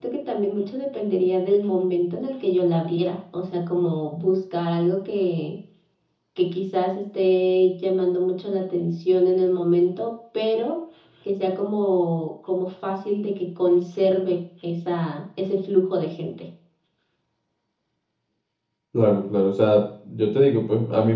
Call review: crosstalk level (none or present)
none